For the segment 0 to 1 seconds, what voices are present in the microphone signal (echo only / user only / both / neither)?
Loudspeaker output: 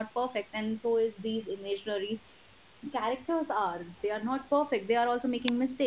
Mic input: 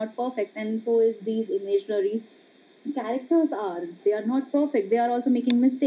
echo only